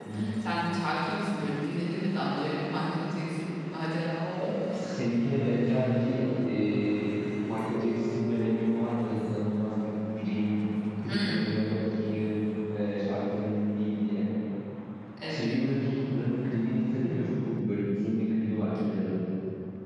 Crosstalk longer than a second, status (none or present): none